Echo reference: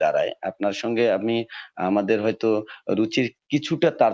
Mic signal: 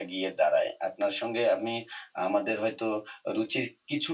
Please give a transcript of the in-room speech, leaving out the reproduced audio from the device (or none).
none